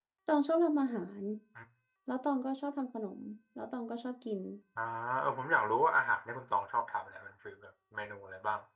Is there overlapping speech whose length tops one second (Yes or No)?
No